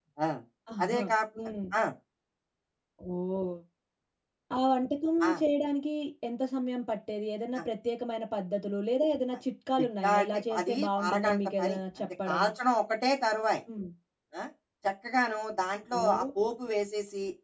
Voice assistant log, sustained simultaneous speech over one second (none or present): present